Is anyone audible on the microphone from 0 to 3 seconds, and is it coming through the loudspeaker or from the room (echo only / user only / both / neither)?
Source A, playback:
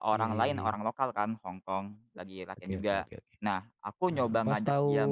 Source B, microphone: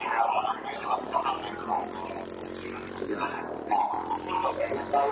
echo only